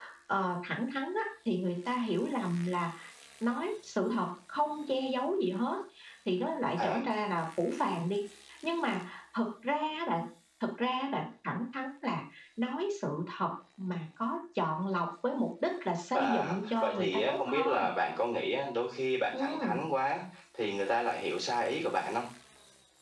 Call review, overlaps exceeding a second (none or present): present